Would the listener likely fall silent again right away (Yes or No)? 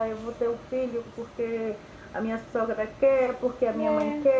Yes